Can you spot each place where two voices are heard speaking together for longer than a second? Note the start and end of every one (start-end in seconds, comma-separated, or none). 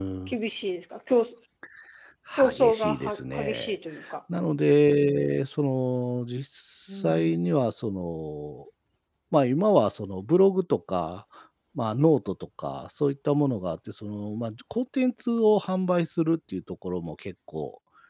2.5-3.8